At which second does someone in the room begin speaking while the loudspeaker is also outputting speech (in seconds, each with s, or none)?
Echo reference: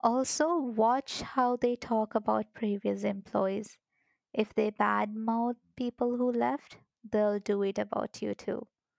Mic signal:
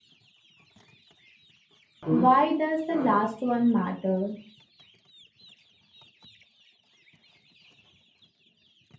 2.0 s